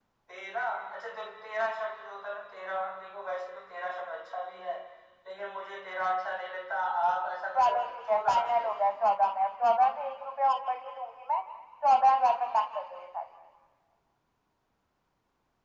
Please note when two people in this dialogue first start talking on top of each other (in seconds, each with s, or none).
7.5 s